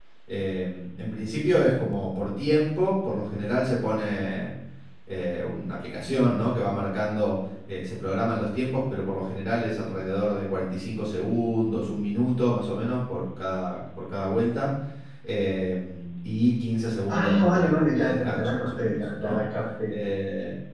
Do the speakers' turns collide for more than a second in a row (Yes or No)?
Yes